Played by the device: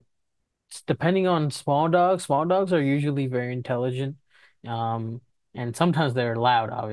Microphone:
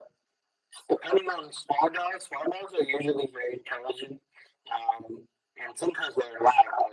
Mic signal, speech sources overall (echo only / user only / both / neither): echo only